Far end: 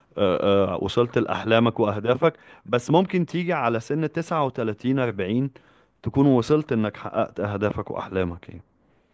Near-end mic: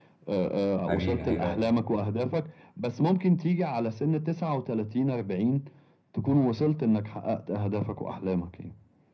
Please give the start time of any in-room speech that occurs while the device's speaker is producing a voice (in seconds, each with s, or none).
0.9 s